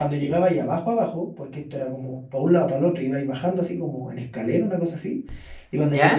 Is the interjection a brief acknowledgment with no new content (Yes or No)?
Yes